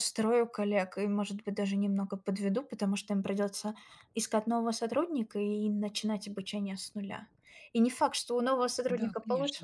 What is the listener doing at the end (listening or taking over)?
listening